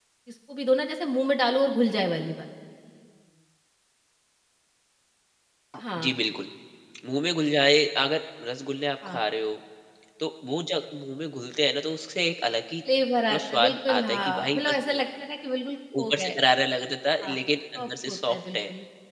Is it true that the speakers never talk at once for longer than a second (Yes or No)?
No